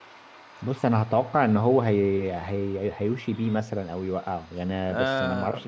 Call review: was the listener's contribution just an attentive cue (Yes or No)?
No